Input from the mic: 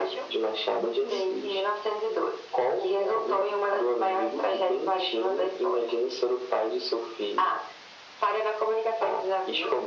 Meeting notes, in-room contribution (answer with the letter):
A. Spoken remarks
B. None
A